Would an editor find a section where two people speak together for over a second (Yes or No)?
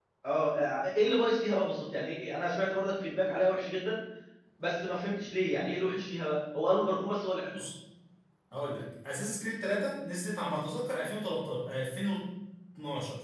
No